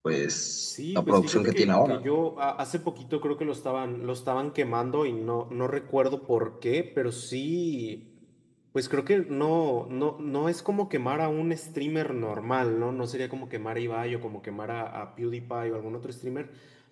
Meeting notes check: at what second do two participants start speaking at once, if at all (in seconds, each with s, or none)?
0.6 s